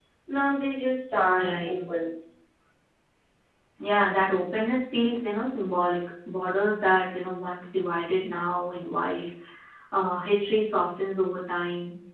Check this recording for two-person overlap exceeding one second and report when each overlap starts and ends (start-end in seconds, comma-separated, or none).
none